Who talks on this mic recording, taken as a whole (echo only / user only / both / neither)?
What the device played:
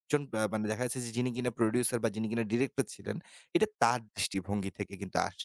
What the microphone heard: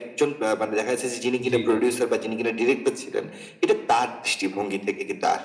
both